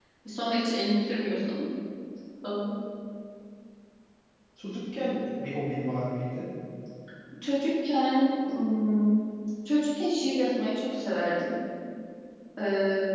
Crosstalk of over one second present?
No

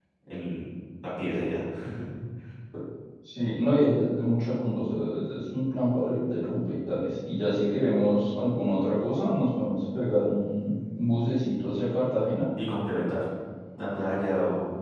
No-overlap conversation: Yes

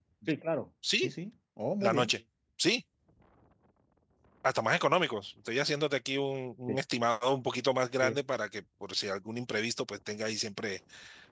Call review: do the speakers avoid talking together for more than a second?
Yes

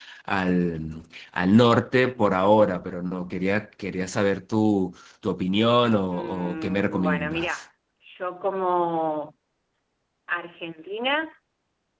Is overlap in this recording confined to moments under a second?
No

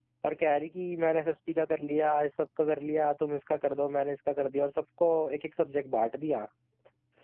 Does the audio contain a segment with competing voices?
No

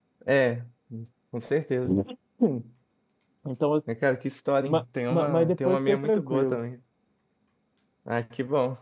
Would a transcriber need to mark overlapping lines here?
Yes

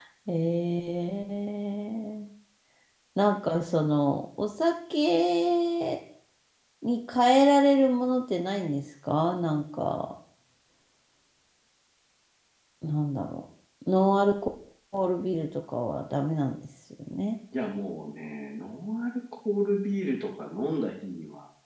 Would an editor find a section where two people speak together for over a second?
No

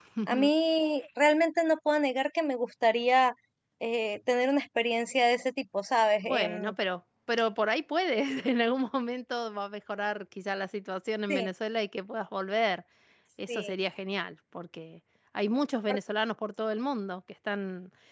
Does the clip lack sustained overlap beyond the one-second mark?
Yes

